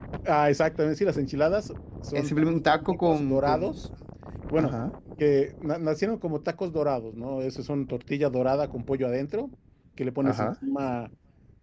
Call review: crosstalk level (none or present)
present